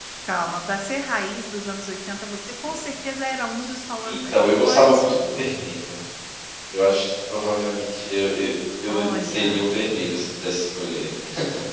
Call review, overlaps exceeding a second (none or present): present